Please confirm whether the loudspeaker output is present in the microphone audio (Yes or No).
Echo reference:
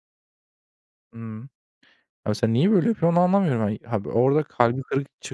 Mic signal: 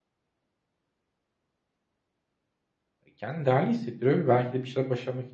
No